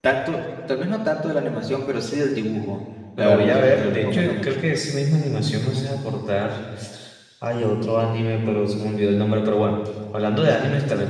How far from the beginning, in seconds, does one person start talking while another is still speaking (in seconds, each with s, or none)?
3.2 s